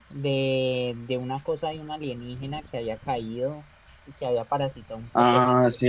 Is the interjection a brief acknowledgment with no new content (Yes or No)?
No